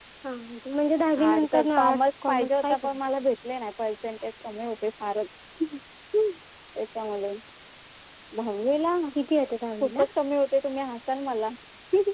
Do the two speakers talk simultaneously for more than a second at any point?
Yes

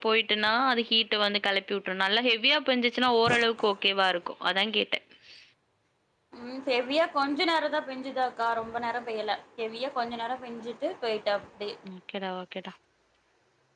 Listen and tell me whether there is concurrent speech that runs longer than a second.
No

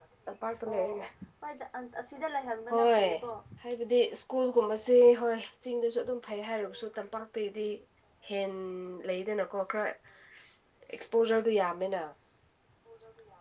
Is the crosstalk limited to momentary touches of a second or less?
Yes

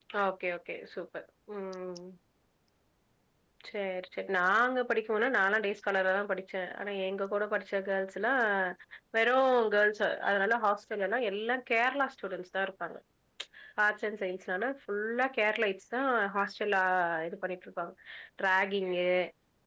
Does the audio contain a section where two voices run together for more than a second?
No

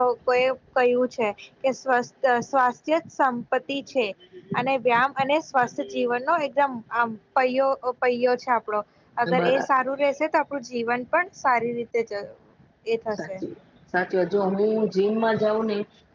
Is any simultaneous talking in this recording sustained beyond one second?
No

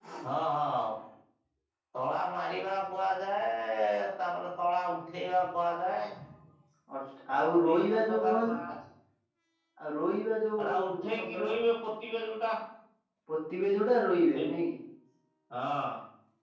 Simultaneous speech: Yes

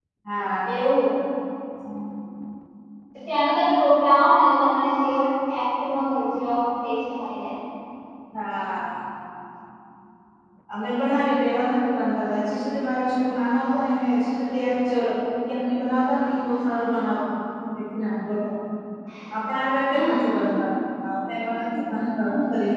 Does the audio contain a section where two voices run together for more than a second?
No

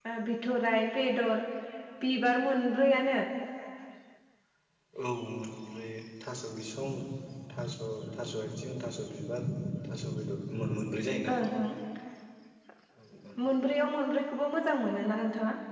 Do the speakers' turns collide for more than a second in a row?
No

